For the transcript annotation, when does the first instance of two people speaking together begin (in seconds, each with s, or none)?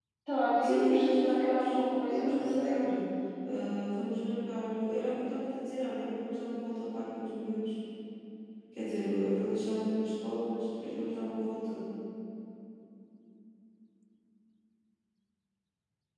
0.6 s